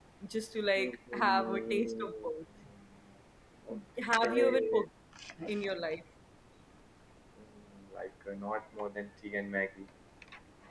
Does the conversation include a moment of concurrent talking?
Yes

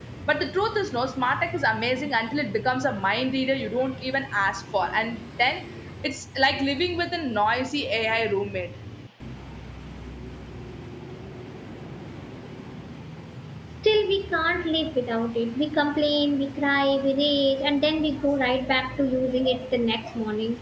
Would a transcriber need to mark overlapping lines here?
No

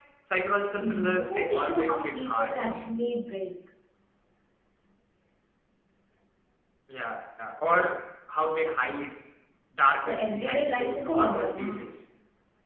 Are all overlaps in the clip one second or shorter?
No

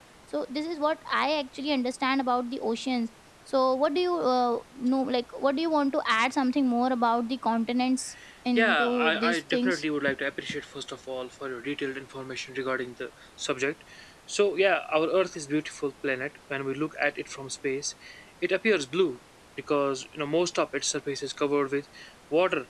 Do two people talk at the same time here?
Yes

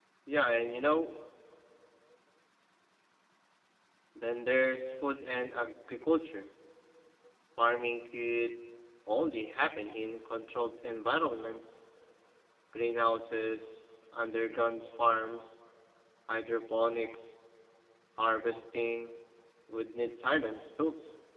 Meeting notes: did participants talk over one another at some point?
No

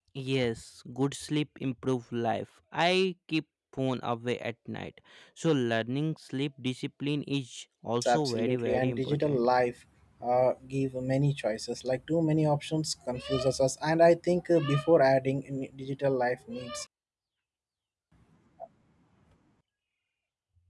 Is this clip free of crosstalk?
No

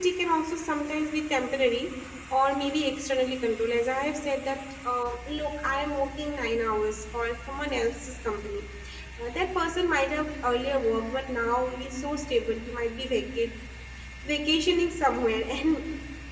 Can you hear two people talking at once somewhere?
No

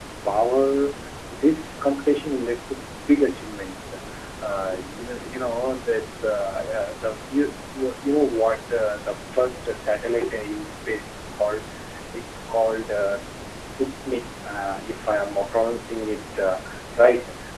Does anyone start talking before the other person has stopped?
No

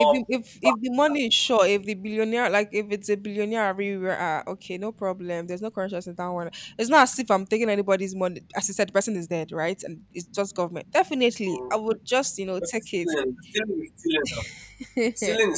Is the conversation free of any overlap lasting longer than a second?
Yes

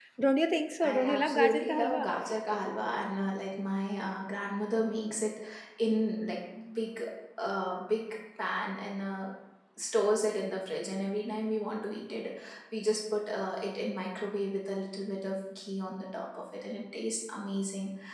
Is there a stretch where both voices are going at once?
Yes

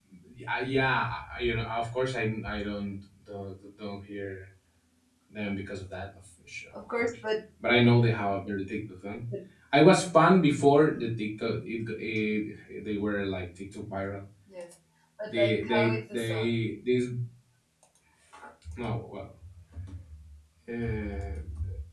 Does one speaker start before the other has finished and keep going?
Yes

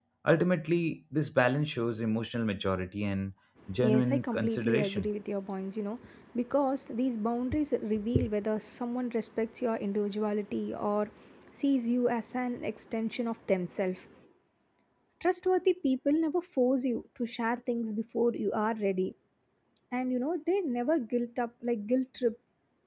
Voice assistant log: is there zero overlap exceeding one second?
No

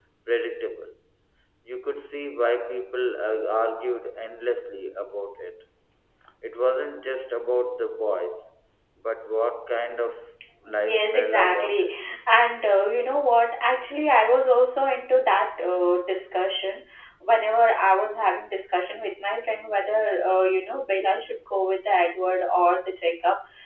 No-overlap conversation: No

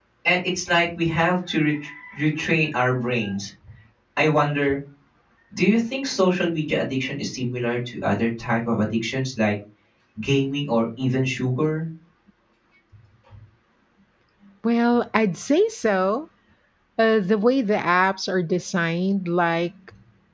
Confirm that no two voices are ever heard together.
Yes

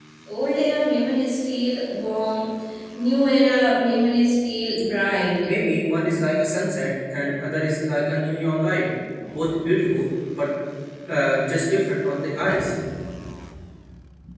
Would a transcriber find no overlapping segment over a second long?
Yes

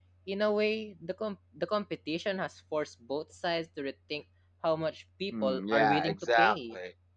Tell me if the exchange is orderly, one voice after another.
No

